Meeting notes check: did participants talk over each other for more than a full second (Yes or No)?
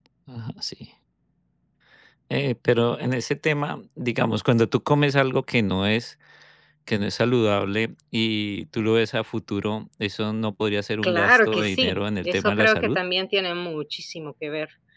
Yes